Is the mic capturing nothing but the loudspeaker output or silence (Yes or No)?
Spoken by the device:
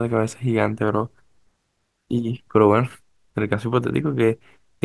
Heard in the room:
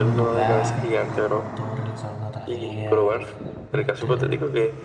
No